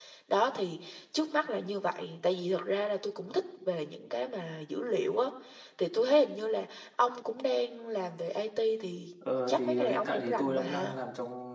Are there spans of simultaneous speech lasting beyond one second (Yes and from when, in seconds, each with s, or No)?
Yes, from 9.5 s